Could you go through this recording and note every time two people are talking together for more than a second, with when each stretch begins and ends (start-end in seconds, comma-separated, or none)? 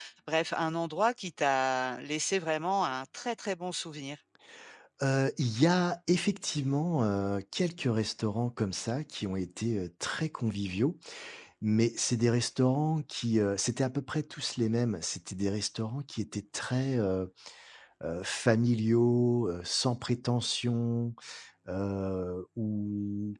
none